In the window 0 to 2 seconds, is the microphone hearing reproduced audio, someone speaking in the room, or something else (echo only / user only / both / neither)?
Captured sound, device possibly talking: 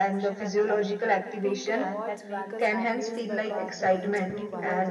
both